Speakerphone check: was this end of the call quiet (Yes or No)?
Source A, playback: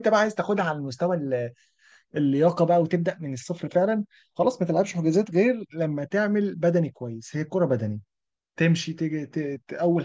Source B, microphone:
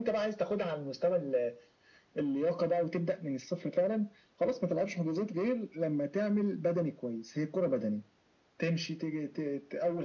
Yes